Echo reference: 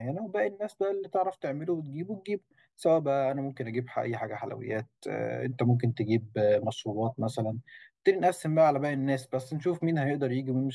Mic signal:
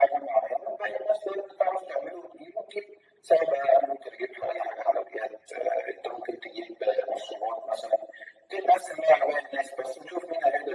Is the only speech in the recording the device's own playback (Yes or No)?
Yes